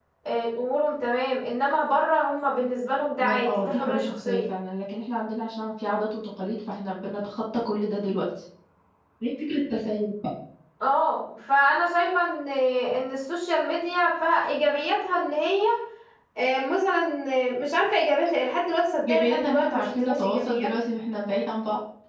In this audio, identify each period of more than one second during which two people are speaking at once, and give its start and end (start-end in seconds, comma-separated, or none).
3.2-4.4, 19.0-20.7